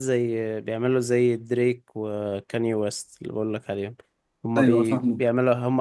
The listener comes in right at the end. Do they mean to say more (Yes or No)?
No